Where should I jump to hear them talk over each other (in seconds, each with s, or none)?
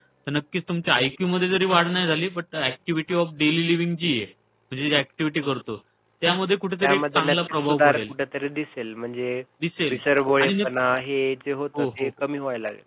6.8 s